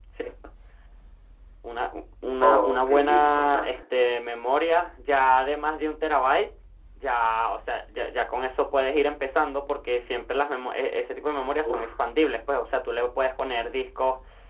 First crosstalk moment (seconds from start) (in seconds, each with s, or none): 2.4 s